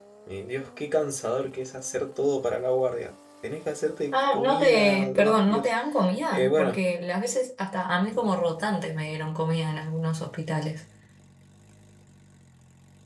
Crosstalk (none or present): present